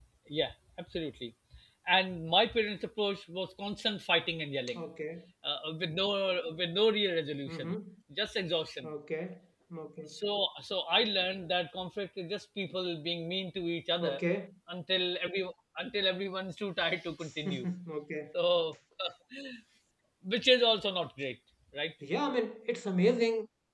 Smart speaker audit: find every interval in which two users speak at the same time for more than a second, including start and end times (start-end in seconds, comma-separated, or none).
none